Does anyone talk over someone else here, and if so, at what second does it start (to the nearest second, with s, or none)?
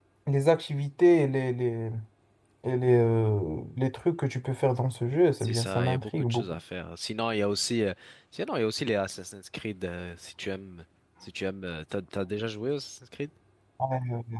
5 s